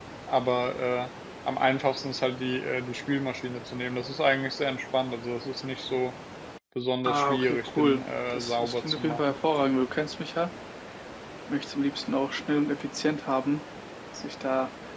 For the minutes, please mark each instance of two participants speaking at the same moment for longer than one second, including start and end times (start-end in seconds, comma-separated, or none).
7.0-9.4